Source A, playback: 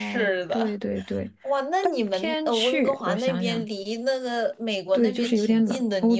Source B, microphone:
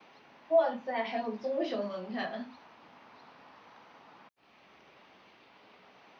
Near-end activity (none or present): present